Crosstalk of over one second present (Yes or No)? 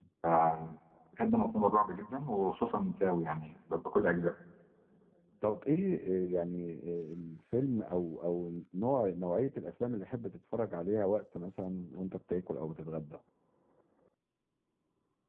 No